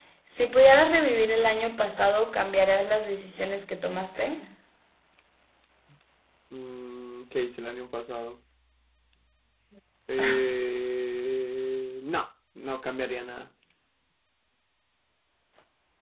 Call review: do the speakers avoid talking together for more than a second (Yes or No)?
Yes